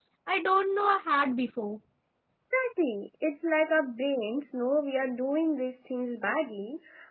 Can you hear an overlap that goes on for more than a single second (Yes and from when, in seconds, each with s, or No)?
No